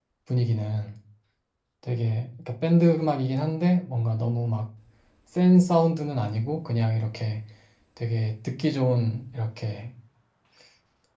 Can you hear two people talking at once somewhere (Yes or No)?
No